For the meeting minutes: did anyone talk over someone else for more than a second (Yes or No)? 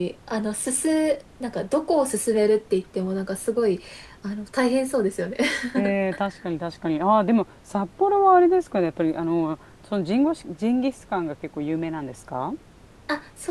No